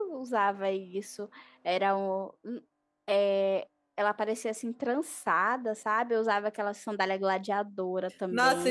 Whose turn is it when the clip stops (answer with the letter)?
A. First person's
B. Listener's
B